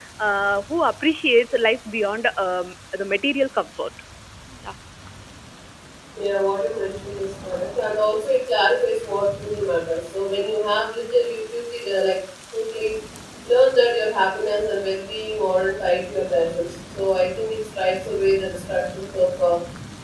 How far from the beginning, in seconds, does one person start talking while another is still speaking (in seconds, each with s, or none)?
none